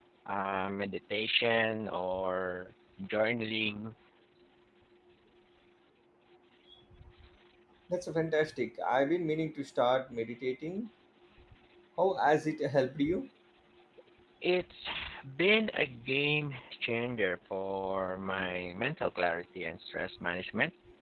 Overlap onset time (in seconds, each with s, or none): none